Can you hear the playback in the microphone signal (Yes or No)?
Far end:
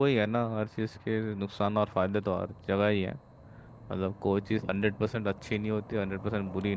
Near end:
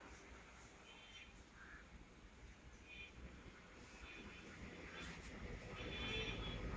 No